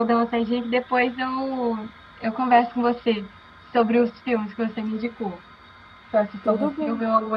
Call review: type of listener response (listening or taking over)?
listening